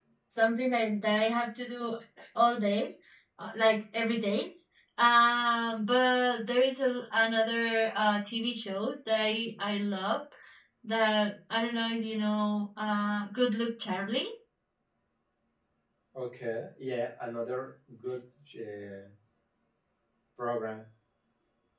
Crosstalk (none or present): none